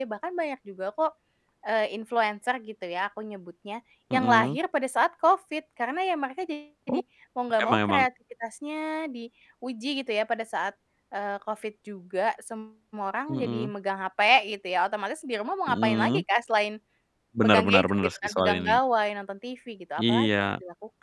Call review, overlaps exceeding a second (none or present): present